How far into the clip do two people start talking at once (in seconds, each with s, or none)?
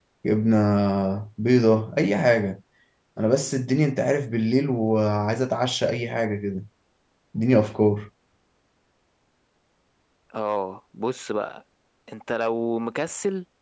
none